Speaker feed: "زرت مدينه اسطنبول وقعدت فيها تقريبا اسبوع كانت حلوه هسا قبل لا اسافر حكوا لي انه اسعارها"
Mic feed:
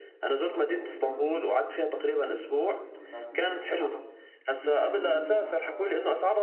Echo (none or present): present